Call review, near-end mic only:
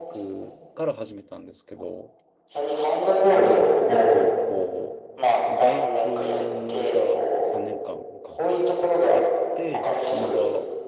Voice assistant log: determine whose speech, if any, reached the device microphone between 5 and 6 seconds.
both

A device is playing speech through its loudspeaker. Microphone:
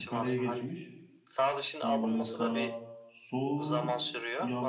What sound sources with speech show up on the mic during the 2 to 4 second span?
both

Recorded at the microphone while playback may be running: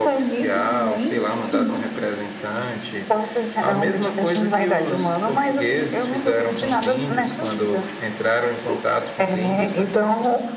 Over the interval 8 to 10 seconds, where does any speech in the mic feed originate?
echo only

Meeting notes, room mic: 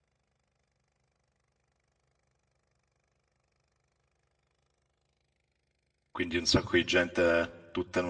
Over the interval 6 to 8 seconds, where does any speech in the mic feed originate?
user only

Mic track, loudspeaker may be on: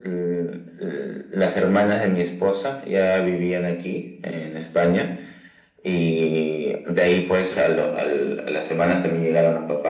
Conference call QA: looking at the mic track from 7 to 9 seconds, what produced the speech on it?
echo only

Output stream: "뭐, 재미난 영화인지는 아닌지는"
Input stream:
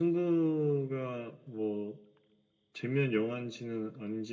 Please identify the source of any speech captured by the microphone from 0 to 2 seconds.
echo only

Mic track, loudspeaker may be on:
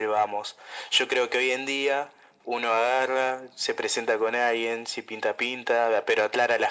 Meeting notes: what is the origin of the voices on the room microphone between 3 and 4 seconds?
echo only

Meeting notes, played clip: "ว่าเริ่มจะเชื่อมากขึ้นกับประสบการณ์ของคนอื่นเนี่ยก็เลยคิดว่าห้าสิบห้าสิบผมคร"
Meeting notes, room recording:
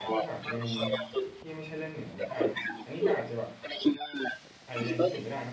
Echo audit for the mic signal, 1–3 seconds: both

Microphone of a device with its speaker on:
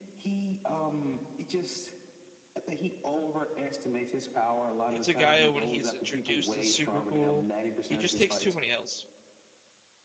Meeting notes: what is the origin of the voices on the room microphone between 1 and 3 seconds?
echo only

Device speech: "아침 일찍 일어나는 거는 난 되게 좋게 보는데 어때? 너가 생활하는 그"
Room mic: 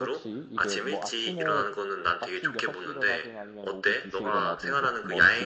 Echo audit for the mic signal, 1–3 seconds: both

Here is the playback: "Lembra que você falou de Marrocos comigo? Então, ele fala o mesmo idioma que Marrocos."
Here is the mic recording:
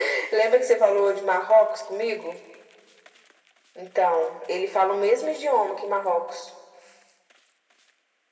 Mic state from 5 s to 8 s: echo only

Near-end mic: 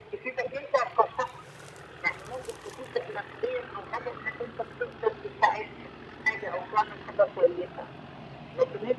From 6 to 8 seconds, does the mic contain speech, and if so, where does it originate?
echo only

